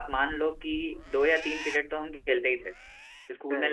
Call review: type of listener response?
listening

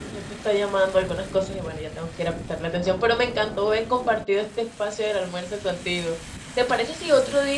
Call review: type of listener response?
listening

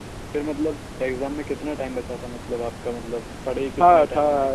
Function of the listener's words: taking over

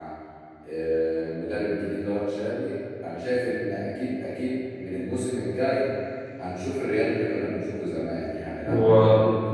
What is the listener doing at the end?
listening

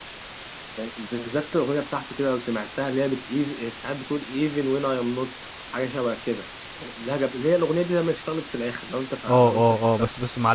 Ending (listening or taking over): taking over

